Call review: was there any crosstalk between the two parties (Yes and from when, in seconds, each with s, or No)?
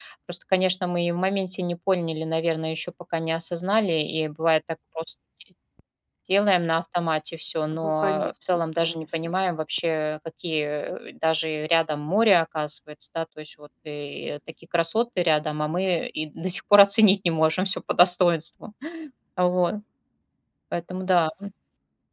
Yes, from 7.7 s